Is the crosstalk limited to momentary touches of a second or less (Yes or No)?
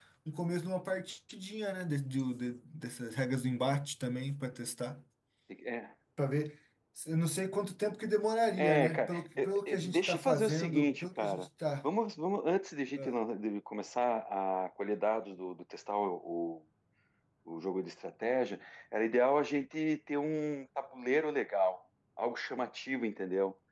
No